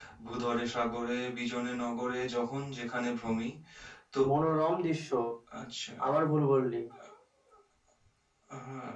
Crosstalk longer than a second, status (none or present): none